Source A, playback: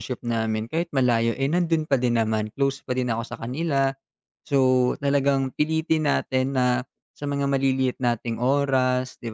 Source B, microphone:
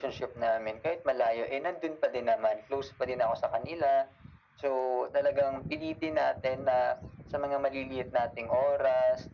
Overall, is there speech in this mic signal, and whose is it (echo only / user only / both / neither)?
echo only